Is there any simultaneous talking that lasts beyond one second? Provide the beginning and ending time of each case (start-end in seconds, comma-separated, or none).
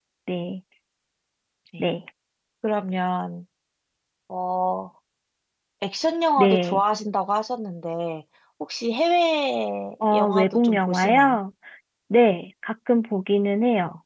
10.1-11.4